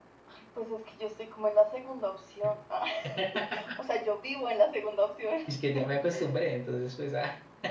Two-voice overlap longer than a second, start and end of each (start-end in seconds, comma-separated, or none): none